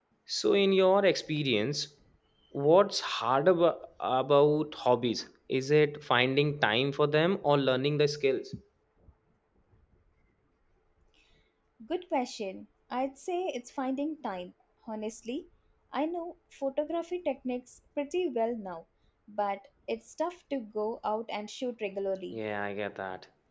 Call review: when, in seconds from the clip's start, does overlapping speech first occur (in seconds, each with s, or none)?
none